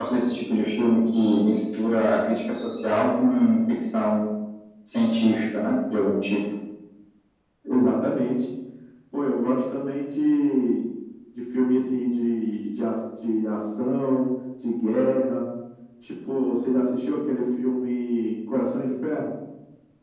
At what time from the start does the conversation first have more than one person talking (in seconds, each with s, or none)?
none